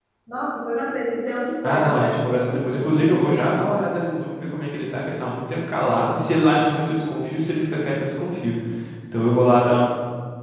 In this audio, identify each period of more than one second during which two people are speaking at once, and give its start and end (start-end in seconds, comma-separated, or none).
1.6-3.4